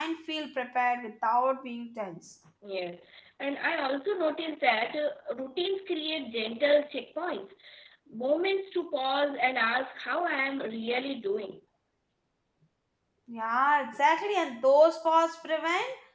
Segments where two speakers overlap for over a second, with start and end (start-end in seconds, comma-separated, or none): none